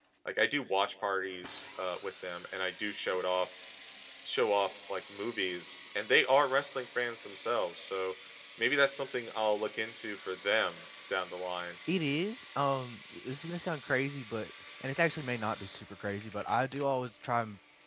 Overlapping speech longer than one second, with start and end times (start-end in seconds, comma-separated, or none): none